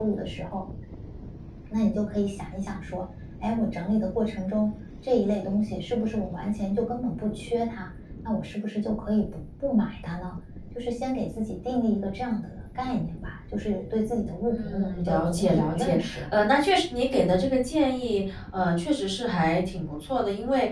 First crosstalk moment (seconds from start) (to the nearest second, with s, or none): 14 s